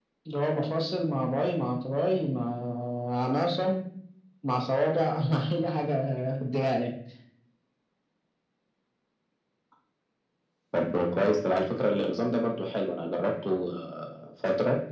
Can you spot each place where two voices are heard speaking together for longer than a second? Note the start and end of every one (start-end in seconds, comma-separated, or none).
none